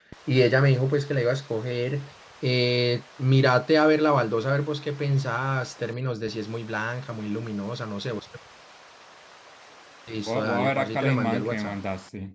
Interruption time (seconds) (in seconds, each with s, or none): 10.2 s